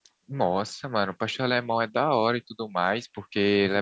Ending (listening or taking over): taking over